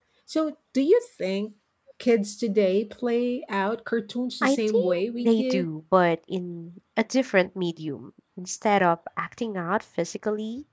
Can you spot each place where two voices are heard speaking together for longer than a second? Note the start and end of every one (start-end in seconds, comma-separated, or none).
4.4-5.7